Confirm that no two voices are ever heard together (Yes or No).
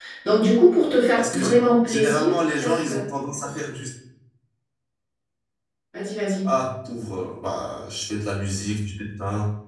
No